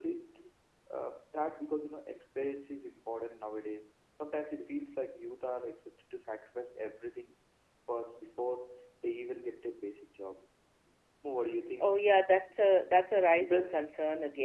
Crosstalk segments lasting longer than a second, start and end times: none

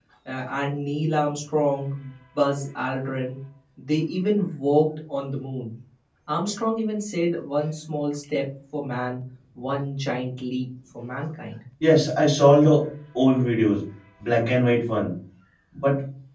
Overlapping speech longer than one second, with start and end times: none

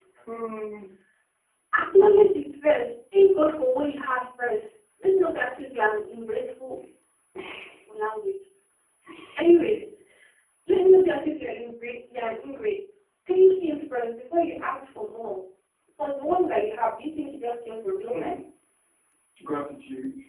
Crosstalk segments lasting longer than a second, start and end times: none

